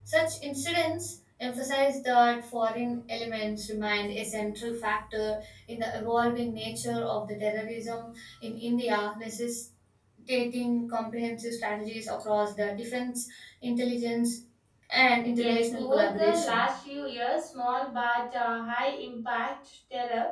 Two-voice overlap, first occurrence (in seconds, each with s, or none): 15.4 s